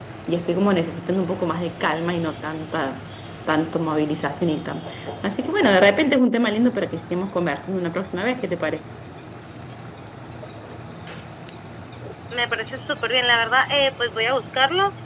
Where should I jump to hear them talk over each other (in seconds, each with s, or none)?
none